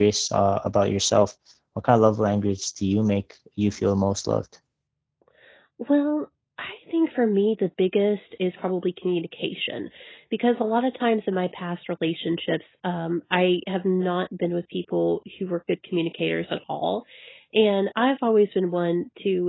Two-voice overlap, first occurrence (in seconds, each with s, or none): none